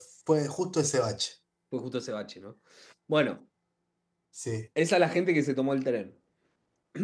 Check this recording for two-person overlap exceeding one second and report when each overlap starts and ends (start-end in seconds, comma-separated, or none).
none